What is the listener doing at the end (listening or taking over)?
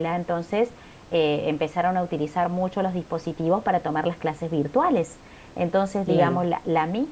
listening